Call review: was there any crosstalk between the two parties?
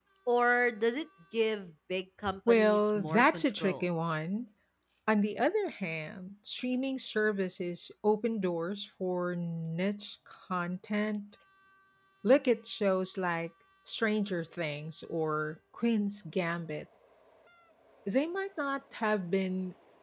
Yes, from 2.5 s

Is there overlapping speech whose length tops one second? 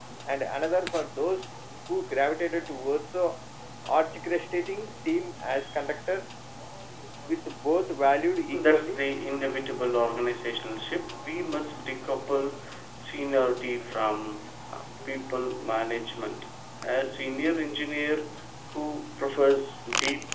No

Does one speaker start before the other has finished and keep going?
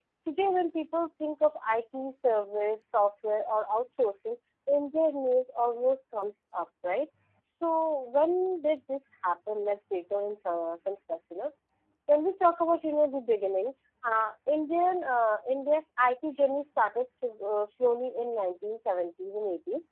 No

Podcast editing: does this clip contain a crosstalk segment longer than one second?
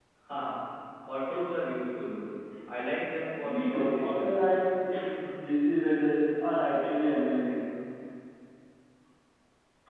Yes, from 3.4 s

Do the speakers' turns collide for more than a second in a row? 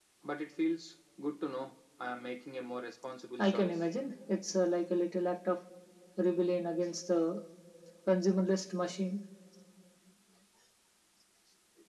No

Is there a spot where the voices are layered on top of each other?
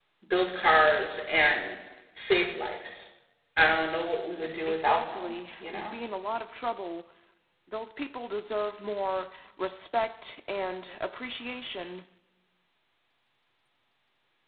Yes, from 4.7 s

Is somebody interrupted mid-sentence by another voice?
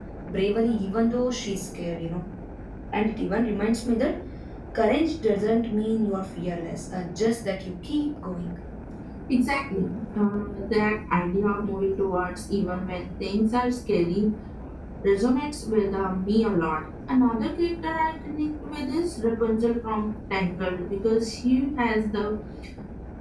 No

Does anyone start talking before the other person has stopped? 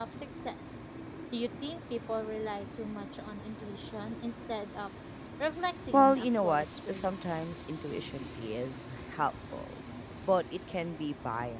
Yes, from 5.9 s

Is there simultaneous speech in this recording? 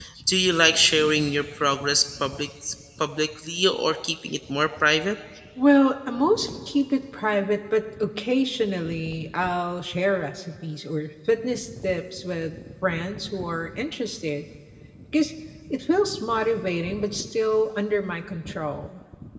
No

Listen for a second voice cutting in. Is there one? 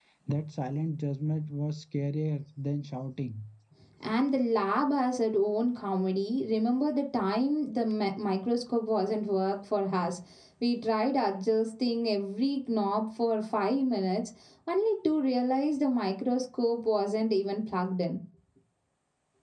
No

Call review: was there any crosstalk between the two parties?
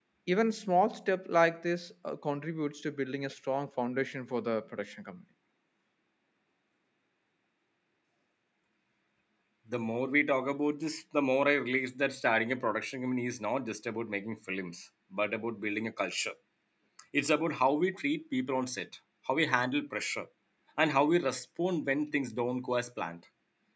No

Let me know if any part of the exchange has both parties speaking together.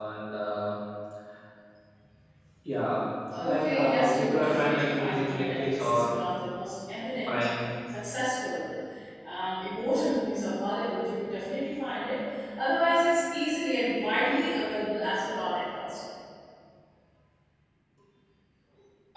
Yes, from 3.4 s

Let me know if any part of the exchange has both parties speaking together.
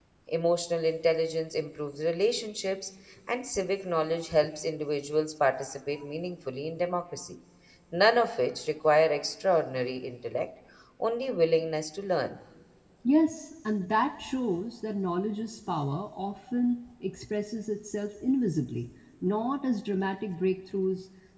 No

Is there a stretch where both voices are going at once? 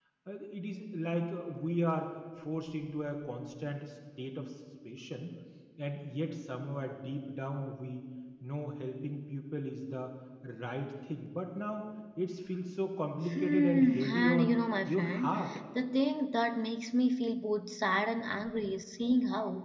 Yes, from 13.2 s

